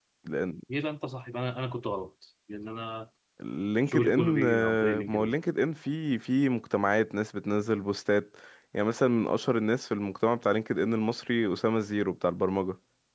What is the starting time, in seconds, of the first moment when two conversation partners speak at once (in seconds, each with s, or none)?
3.9 s